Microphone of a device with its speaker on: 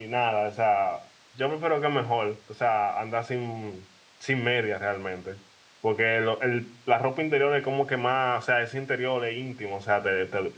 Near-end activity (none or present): present